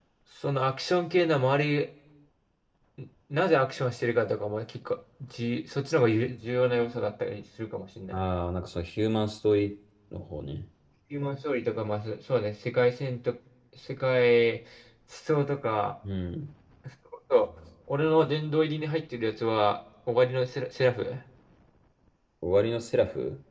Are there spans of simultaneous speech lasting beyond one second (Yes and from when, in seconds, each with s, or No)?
No